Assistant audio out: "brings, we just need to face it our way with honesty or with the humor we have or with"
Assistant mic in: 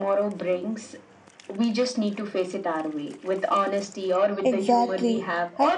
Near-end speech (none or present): present